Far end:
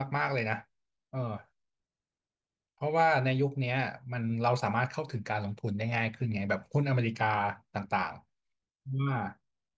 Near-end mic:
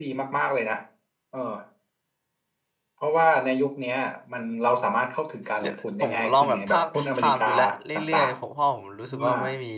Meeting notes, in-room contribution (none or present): present